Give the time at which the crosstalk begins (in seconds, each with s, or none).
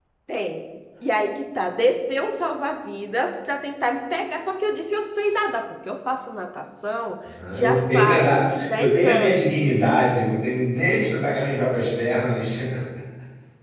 7.4 s